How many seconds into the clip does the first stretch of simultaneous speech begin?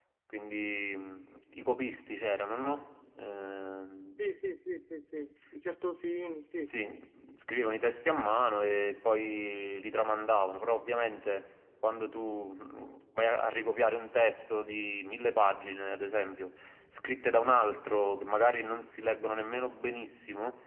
none

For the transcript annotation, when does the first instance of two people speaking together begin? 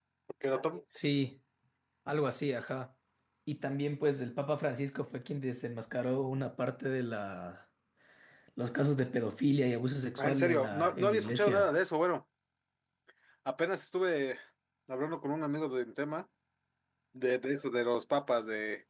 10.2 s

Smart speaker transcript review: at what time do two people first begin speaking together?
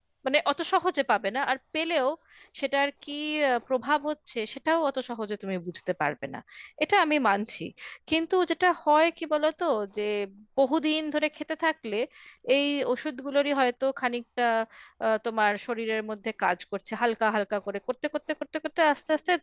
none

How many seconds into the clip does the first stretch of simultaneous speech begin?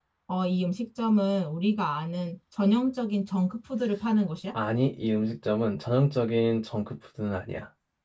none

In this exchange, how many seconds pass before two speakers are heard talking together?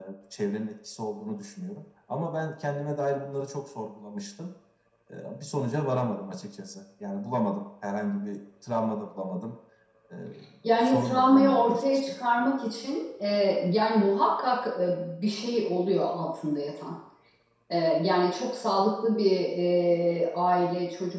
10.8 s

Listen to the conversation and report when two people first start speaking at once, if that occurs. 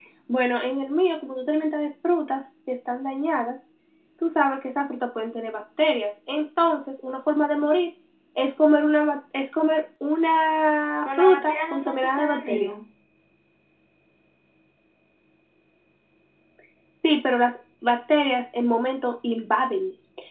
11.0 s

